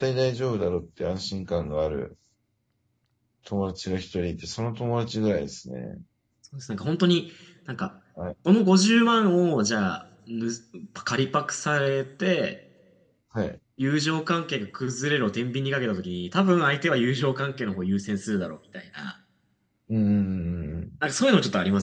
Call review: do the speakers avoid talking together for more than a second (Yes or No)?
Yes